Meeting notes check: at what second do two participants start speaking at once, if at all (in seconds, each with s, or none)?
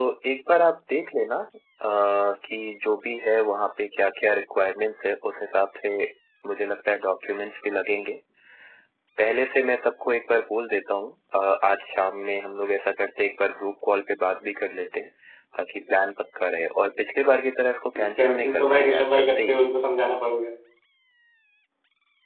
18.0 s